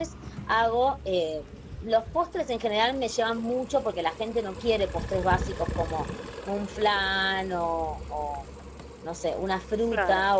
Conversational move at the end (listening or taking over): listening